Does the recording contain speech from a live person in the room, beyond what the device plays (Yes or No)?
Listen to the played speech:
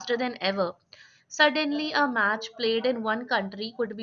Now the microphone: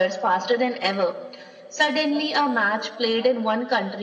No